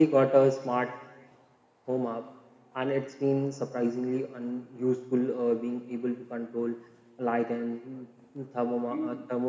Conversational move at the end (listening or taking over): listening